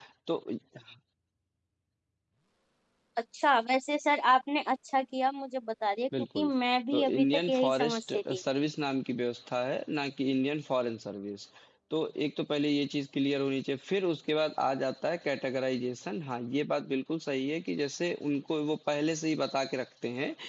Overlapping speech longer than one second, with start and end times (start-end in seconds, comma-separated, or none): 6.9-8.4